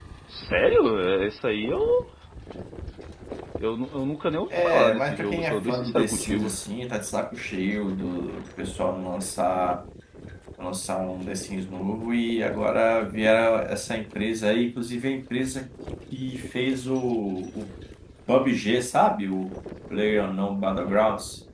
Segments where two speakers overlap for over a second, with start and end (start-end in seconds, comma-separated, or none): 4.5-6.5